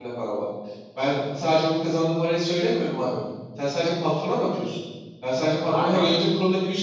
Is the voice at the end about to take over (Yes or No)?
No